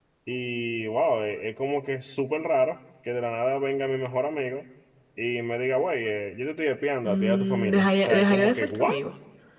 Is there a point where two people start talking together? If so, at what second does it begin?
7 s

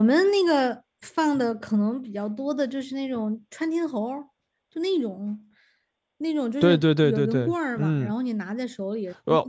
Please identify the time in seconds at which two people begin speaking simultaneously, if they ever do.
7 s

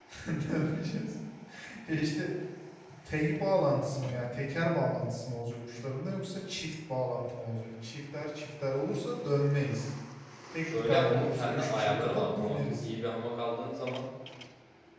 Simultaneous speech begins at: 11 s

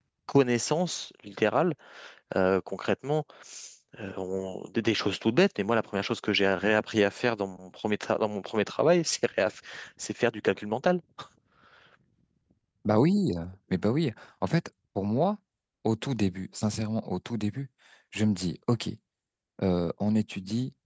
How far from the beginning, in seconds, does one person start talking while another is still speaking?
none

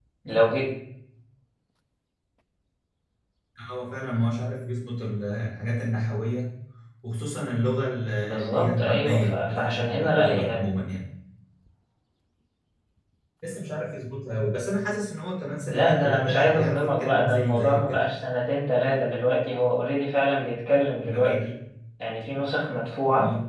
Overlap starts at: 8 s

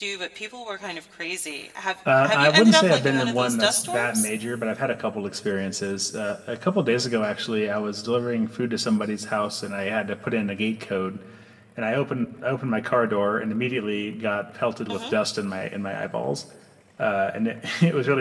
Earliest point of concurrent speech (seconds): 2 s

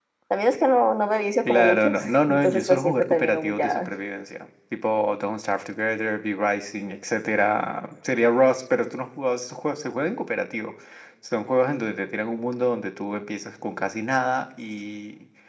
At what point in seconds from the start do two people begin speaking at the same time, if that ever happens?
1 s

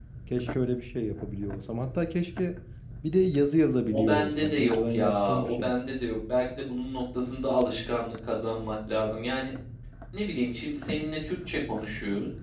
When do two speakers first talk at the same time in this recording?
4 s

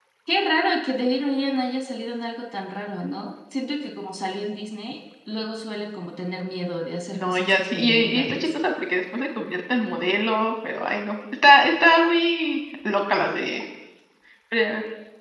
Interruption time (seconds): 7 s

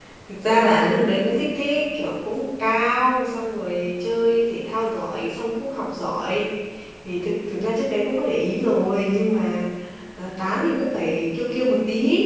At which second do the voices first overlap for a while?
none

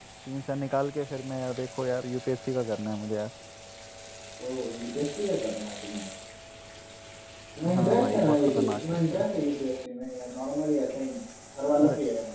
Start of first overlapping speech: 8 s

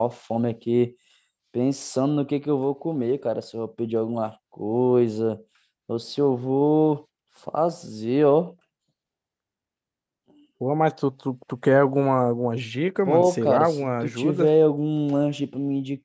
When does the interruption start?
13 s

